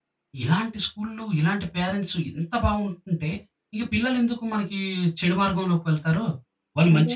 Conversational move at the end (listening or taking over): listening